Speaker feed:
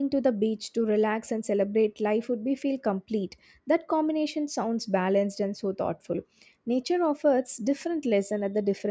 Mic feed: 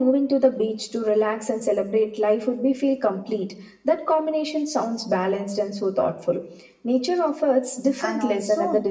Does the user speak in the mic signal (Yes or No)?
Yes